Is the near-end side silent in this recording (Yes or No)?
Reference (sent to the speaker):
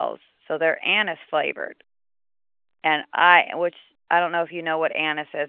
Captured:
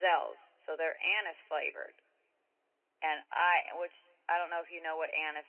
Yes